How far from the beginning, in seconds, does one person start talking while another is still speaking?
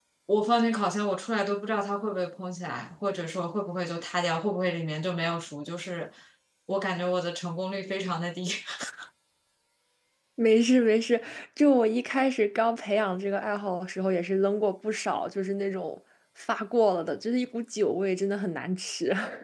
none

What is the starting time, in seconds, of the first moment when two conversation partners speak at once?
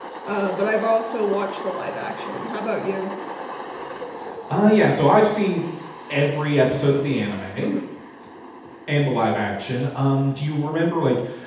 none

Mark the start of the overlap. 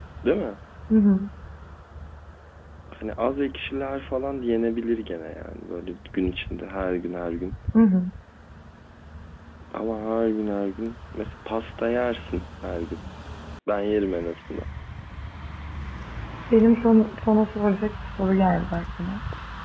none

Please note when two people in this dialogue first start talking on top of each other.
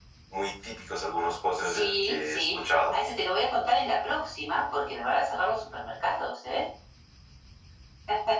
1.6 s

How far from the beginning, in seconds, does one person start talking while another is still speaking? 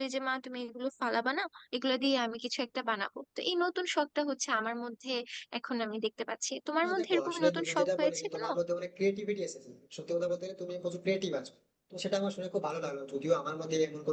6.8 s

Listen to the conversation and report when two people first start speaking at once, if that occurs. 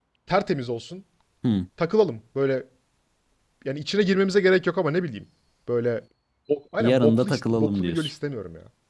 6.8 s

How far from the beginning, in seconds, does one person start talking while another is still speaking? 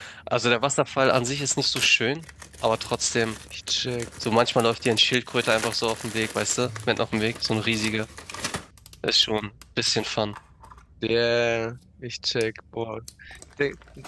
none

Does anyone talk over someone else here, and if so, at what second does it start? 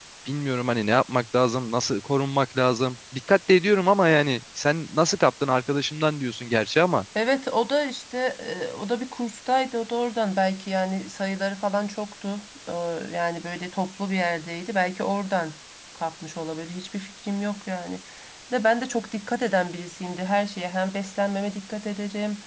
none

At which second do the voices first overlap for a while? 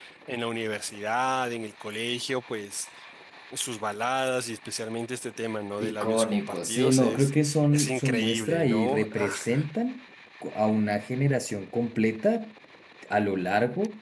5.8 s

